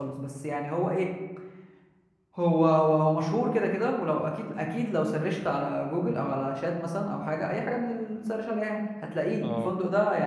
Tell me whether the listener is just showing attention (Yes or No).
Yes